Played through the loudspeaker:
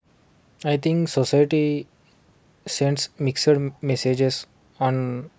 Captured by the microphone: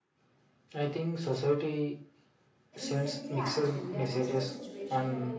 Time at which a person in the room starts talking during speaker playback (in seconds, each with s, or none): 2.8 s